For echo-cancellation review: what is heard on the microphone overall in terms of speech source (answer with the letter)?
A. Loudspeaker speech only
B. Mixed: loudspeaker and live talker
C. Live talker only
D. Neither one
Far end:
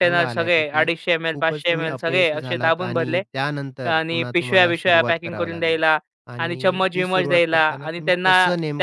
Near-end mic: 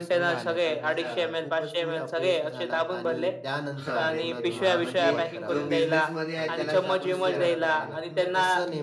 B